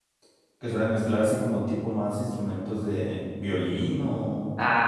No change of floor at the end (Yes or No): No